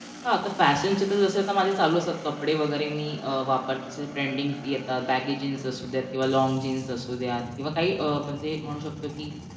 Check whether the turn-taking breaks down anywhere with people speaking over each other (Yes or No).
No